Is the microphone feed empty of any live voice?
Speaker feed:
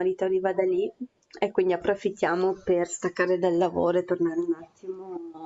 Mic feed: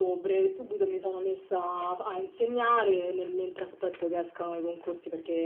No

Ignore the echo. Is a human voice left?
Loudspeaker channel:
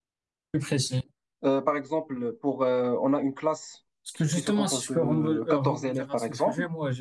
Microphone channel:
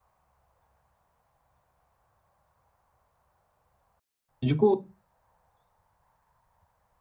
Yes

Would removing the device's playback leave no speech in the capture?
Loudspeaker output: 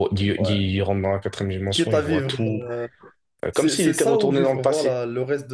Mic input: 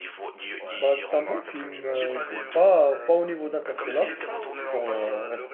No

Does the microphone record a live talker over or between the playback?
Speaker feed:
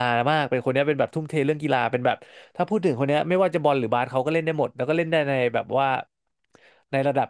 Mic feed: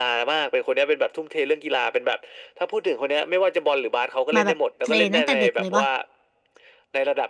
Yes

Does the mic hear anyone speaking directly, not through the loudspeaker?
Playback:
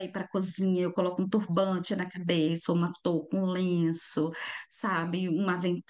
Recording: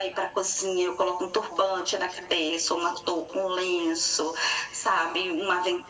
No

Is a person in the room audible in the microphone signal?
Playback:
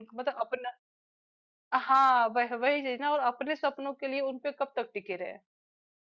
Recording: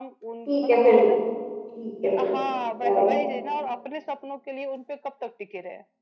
Yes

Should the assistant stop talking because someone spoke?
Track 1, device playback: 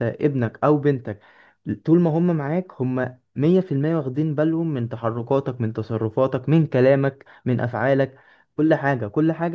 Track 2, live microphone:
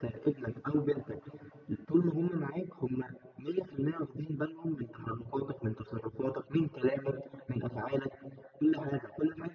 No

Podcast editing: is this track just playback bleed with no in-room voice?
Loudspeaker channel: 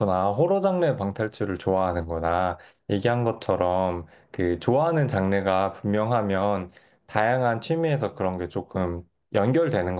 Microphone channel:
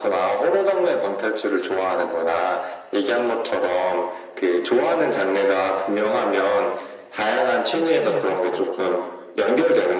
No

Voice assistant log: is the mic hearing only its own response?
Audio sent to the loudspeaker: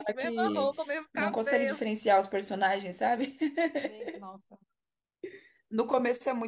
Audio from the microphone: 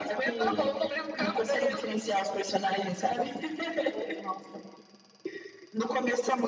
Yes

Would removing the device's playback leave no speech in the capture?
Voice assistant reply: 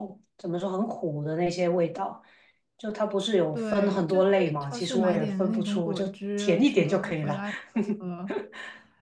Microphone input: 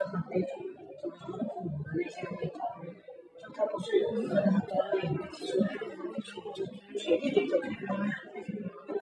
No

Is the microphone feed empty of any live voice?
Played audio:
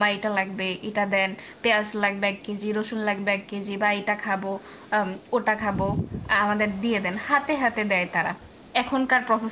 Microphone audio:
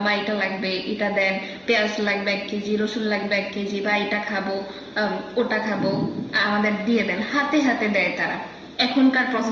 Yes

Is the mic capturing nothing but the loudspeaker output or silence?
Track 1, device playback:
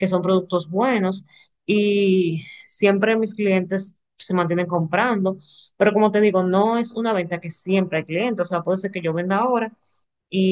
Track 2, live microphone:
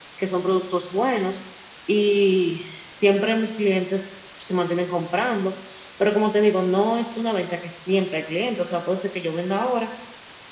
Yes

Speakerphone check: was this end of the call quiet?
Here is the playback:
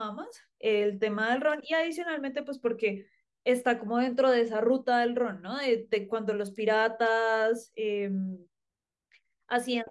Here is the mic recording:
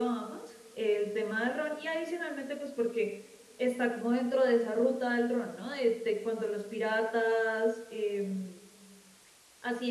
Yes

